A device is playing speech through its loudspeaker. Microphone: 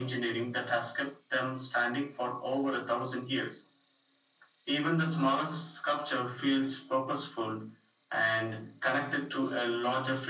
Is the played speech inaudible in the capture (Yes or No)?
No